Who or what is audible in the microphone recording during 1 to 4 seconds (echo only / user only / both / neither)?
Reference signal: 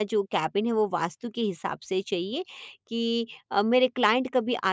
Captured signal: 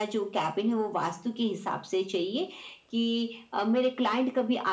echo only